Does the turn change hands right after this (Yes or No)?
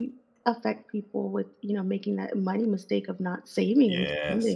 Yes